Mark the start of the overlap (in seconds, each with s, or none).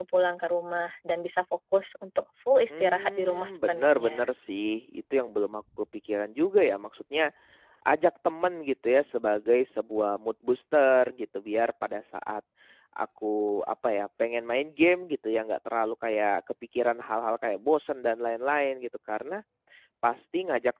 2.7 s